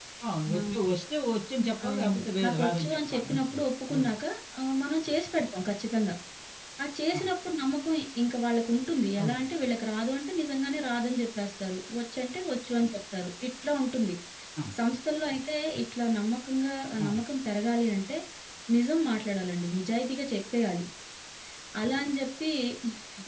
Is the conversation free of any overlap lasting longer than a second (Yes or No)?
No